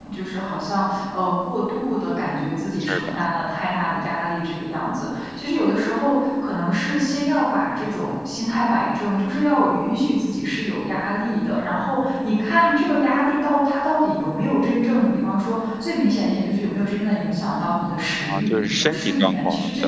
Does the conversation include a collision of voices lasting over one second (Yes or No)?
Yes